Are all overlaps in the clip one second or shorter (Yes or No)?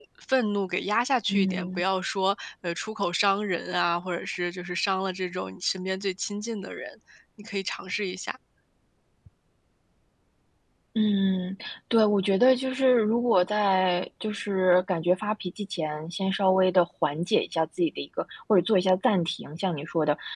Yes